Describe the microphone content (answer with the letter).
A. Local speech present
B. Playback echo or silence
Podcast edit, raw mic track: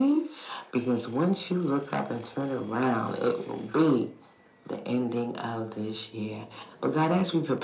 B